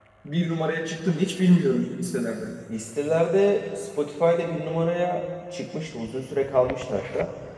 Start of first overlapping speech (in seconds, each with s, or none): none